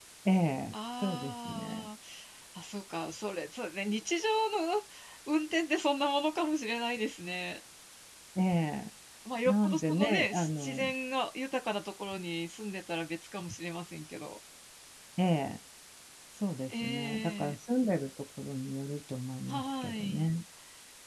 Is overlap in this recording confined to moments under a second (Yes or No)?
No